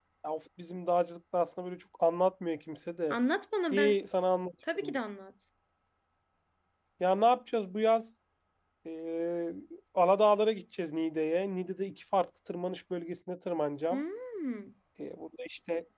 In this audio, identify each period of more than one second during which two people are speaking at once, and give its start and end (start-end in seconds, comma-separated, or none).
none